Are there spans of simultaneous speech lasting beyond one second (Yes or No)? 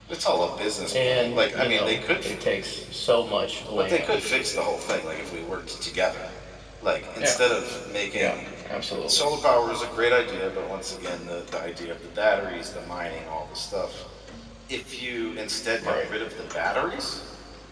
Yes